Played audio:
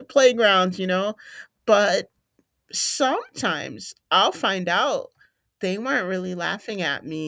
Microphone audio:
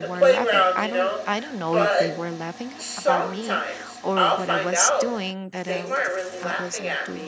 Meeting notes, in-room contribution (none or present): present